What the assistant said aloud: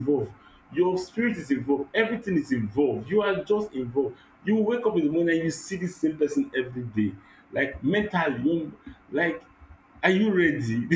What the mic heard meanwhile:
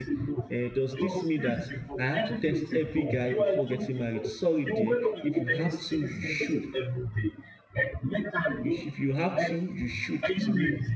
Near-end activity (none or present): present